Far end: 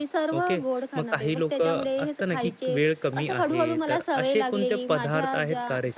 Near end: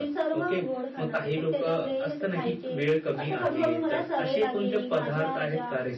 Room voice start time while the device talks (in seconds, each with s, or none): none